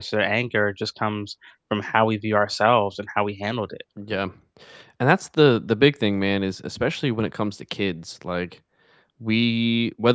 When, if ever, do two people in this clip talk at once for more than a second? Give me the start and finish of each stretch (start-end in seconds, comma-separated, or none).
none